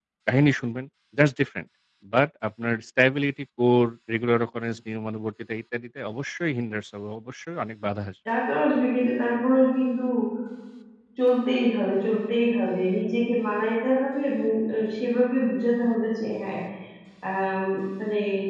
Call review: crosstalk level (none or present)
none